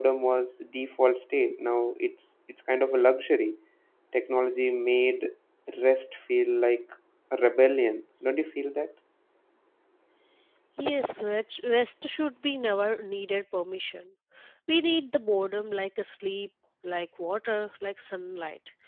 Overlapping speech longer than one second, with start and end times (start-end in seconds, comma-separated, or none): none